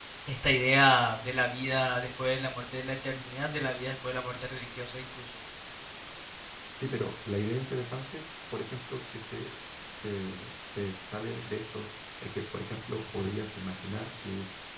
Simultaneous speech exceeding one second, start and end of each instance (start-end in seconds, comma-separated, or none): none